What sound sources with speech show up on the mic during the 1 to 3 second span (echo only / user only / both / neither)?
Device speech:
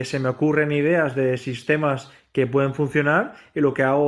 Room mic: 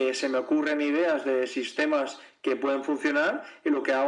echo only